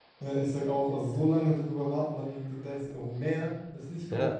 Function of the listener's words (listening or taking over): taking over